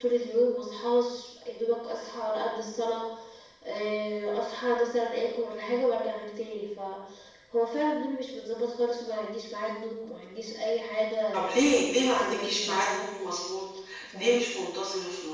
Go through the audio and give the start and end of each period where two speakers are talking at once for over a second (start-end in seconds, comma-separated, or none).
11.3-13.1